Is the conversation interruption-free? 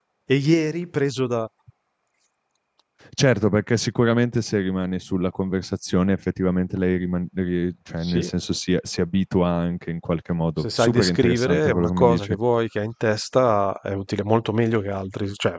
No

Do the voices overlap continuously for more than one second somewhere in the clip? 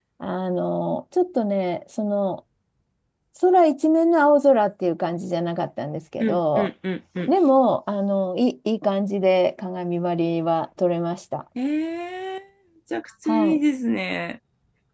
No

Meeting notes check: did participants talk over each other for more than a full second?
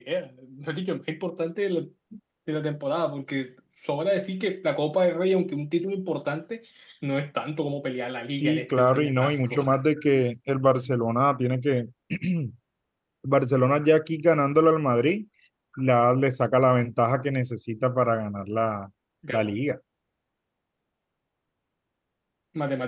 Yes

